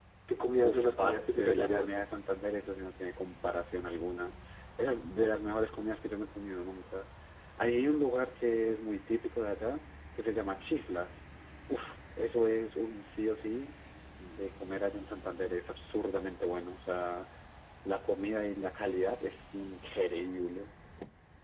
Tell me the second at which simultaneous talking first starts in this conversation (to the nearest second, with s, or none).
1 s